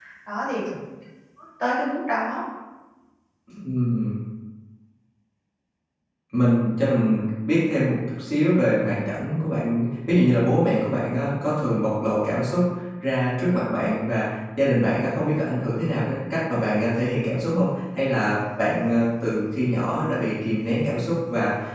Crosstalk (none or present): none